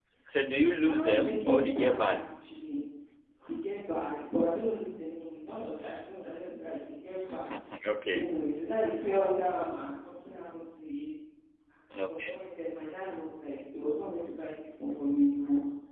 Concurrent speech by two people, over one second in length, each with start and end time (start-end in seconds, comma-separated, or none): 0.8-2.2